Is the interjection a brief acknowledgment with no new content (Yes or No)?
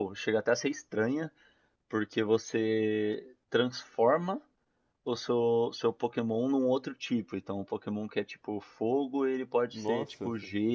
Yes